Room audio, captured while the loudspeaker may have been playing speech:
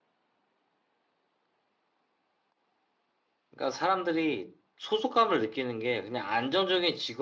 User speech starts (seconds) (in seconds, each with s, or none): 3.5 s